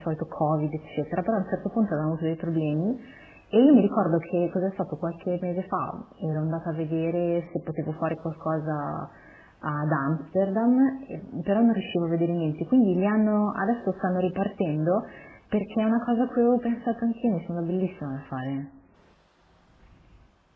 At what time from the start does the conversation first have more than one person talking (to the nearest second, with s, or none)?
none